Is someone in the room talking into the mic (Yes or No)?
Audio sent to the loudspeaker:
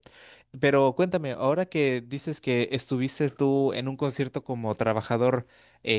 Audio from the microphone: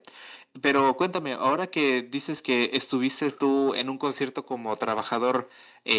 No